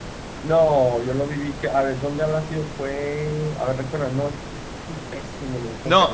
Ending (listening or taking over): taking over